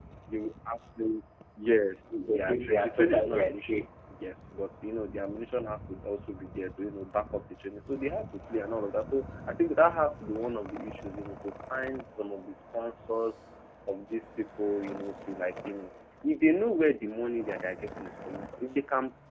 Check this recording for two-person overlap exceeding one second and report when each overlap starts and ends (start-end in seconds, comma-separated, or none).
2.1-3.8